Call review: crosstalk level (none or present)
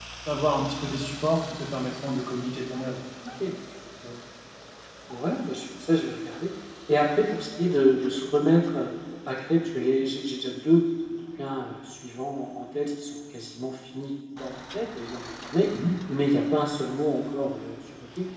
none